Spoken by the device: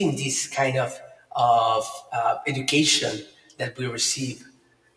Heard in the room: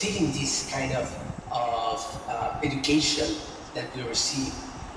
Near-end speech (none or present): none